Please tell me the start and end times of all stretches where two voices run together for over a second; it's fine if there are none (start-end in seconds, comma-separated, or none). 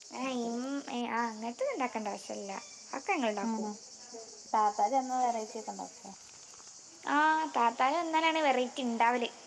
none